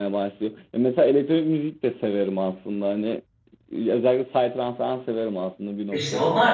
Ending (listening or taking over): taking over